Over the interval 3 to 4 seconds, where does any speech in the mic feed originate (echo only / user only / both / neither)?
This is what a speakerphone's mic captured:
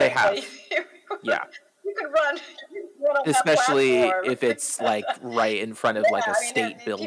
both